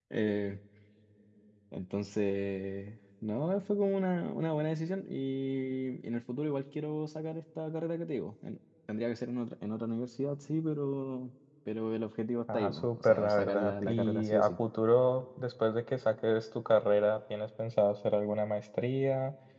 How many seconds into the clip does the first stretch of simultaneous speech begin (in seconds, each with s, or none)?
12.5 s